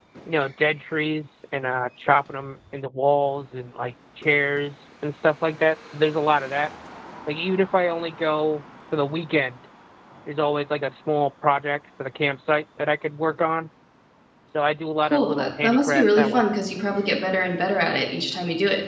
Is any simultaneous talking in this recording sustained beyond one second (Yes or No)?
Yes